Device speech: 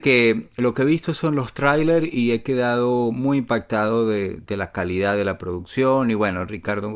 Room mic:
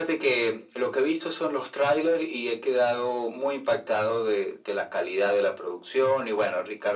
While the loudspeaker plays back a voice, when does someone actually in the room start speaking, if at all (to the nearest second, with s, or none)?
none